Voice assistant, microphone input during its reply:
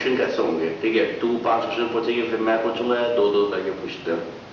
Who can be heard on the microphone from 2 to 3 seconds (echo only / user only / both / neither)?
echo only